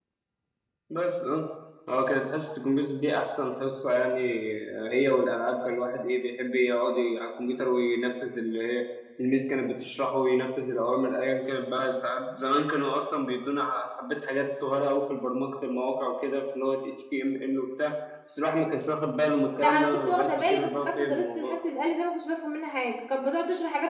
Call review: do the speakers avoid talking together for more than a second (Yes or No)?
No